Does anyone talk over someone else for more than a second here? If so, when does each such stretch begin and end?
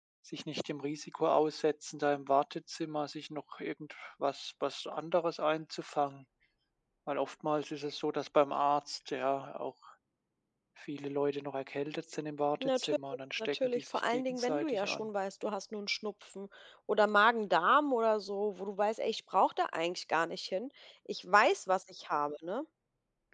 13.4-15.1

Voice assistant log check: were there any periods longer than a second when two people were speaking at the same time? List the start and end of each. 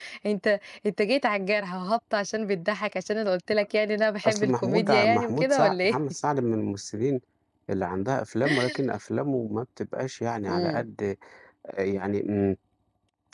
4.2-6.0

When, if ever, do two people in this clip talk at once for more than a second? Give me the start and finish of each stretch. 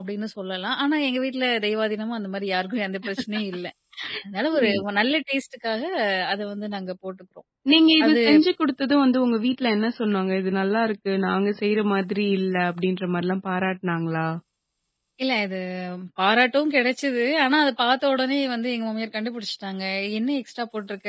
none

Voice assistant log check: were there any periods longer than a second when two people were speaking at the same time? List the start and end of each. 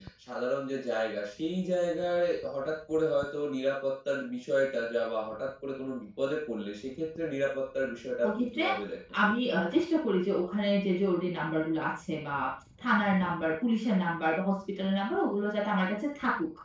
none

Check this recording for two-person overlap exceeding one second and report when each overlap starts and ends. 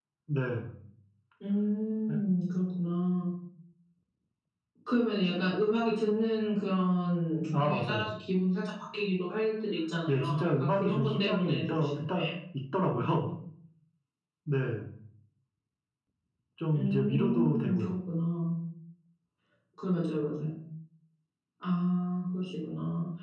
10.1-12.2, 16.7-17.9

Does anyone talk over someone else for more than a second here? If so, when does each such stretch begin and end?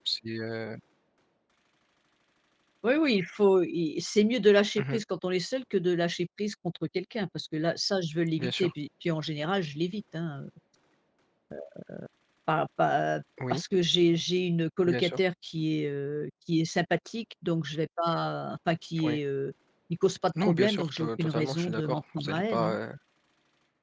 20.4-22.8

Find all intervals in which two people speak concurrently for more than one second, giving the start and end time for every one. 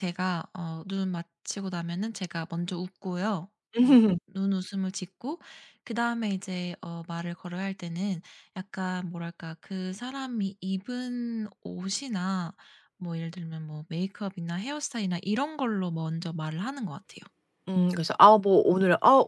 none

